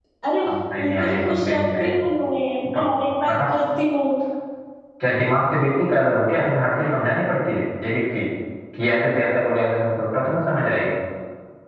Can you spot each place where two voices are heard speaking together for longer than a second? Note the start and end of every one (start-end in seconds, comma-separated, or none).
0.8-2.0